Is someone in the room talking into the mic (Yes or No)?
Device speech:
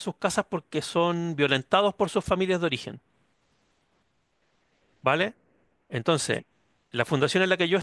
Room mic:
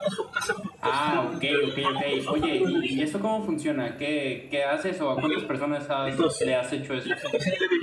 Yes